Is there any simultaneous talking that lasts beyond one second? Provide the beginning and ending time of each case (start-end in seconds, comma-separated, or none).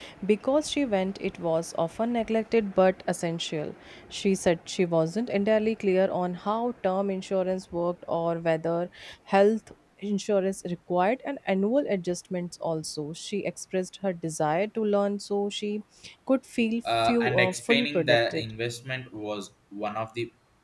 17.0-18.4